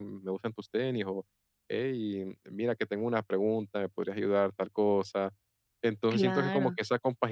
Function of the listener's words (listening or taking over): listening